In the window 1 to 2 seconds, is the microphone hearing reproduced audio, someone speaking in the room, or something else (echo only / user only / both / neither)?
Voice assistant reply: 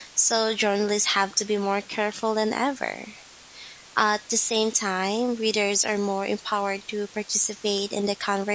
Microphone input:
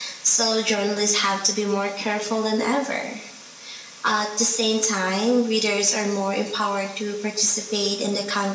echo only